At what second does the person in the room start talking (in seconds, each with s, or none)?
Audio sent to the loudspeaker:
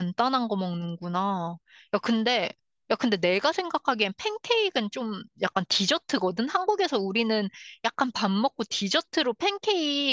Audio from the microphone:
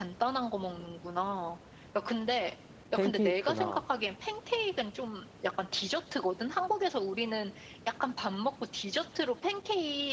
2.9 s